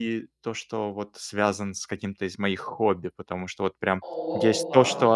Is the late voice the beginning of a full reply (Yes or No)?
No